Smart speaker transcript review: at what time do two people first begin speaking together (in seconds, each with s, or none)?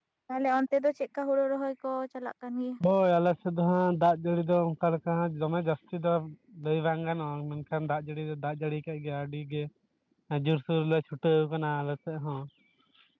none